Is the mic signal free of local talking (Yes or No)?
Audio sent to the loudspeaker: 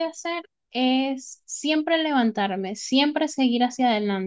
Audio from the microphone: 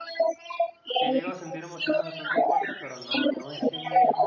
No